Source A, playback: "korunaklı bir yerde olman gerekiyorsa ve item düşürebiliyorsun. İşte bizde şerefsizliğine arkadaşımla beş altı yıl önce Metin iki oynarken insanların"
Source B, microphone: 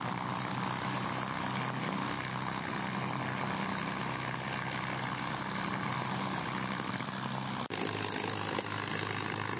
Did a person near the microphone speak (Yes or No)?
No